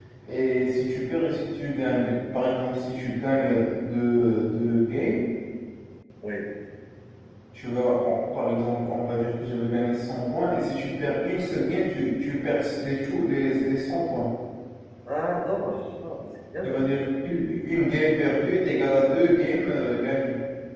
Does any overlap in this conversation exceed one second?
No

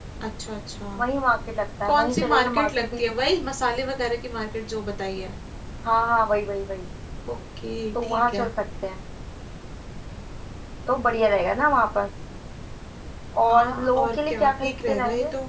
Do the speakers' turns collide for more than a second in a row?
Yes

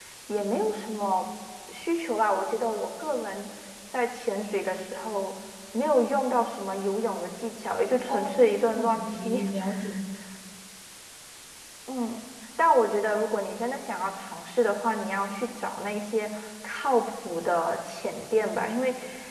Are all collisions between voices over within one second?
No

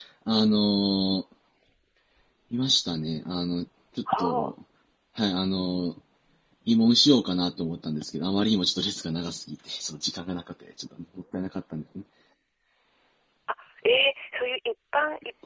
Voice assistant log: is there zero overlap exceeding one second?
Yes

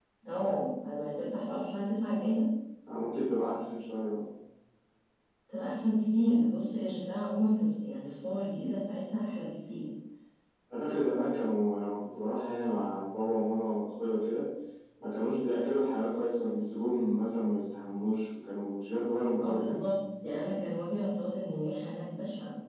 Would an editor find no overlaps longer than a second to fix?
Yes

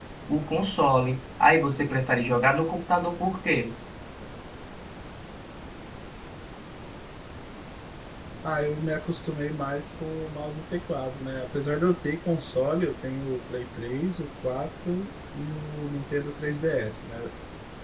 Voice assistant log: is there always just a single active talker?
Yes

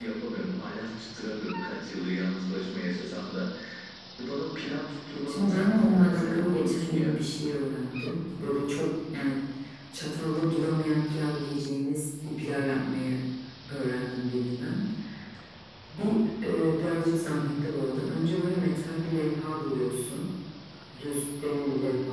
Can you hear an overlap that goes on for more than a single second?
Yes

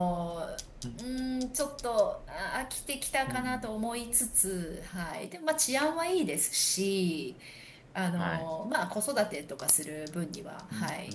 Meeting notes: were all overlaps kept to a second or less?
Yes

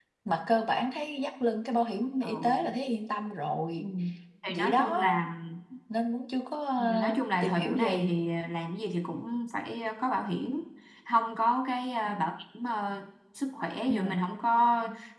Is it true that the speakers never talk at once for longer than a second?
No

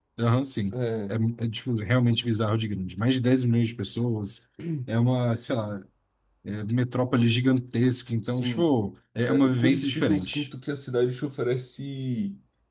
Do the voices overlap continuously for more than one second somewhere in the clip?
Yes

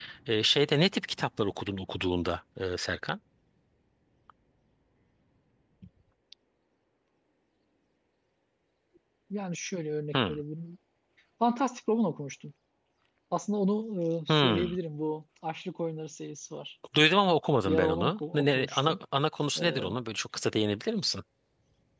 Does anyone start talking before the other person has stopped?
Yes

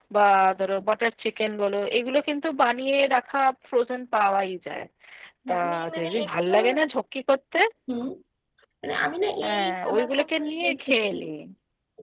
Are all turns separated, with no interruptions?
No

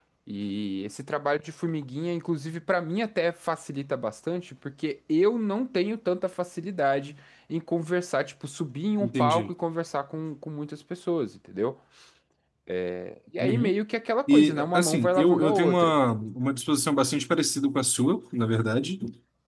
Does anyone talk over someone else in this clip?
Yes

